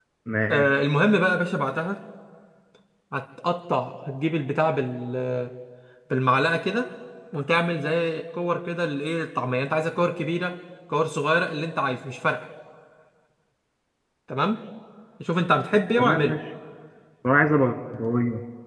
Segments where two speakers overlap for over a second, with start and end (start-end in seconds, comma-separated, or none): none